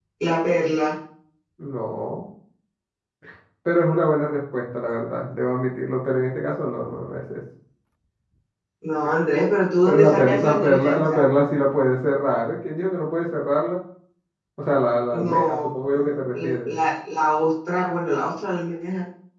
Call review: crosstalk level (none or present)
present